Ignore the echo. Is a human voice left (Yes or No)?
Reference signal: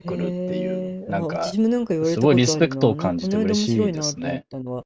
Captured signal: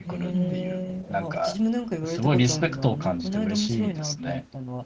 Yes